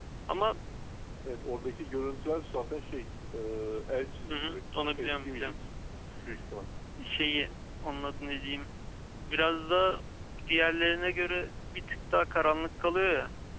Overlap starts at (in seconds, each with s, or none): 4.3 s